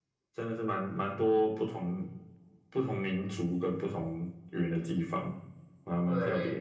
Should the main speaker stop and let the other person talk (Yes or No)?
Yes